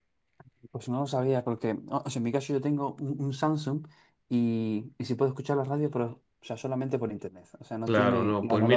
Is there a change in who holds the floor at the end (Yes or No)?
Yes